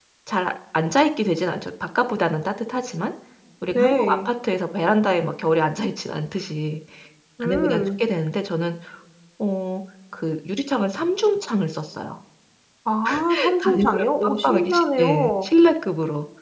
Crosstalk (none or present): present